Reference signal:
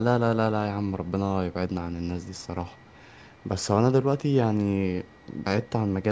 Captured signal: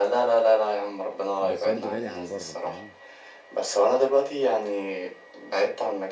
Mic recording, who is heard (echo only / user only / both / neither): both